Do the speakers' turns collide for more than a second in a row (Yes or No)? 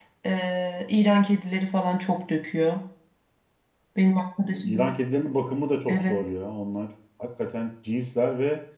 No